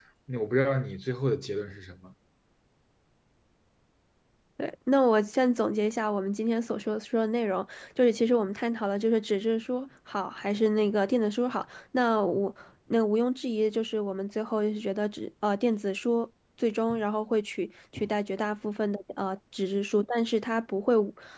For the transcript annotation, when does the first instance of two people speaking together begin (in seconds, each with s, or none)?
none